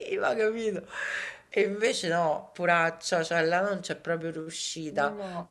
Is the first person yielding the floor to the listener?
No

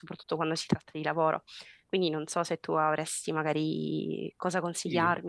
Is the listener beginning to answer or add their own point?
Yes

